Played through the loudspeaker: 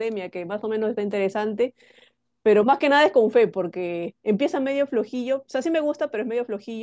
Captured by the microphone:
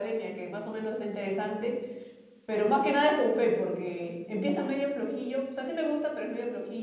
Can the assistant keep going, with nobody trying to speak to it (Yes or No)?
Yes